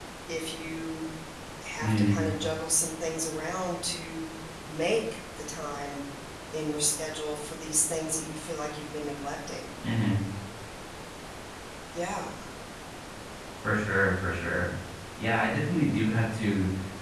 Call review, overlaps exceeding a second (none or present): none